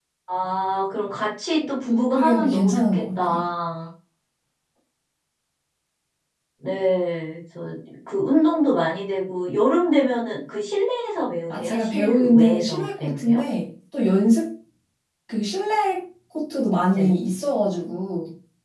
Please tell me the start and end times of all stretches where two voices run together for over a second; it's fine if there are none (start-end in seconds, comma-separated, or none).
1.8-3.4, 11.5-13.4